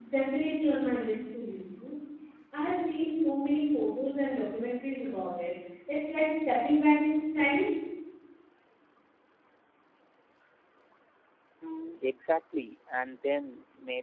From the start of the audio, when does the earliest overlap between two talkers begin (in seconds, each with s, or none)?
none